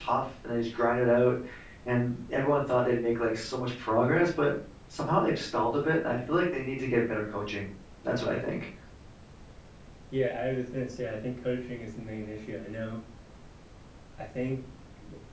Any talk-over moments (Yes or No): No